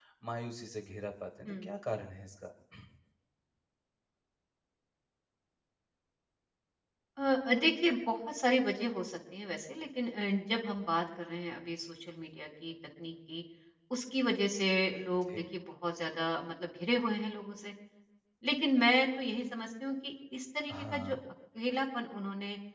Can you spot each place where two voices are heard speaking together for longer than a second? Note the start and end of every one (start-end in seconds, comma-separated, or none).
none